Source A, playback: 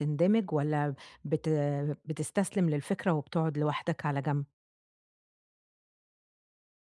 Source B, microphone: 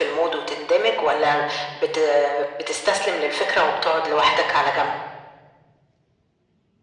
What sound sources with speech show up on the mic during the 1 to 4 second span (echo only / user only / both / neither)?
echo only